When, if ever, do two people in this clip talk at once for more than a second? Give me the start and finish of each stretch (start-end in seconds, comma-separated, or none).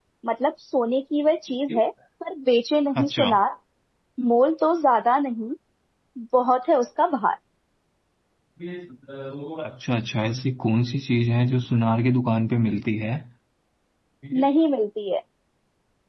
none